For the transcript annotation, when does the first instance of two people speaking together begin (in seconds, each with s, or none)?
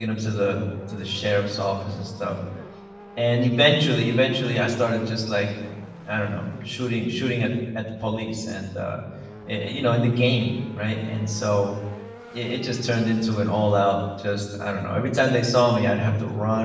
none